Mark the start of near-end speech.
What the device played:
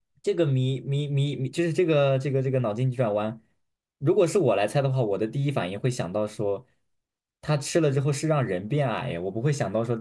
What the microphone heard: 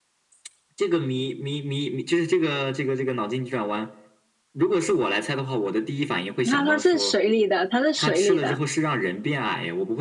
6 s

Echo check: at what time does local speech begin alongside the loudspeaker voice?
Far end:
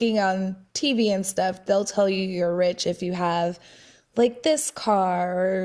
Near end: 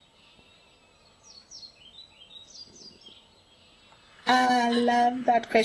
4 s

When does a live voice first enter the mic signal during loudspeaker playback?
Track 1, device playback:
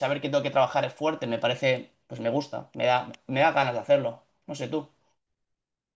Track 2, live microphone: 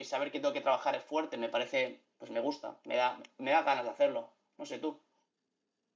none

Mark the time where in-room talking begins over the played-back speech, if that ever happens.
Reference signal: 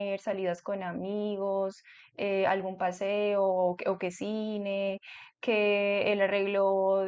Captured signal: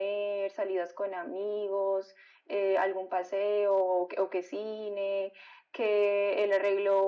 none

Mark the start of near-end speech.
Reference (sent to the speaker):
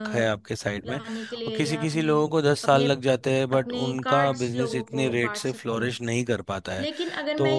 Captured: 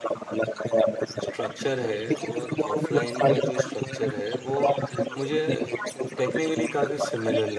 1 s

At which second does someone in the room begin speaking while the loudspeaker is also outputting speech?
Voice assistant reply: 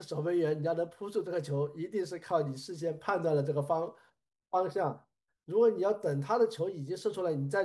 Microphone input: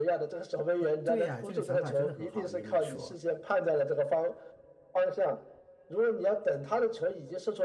1 s

